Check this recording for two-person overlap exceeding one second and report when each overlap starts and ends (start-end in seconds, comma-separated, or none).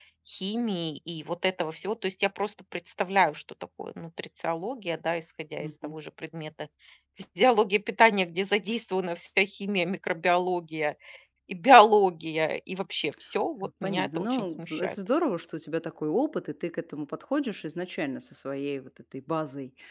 13.6-14.9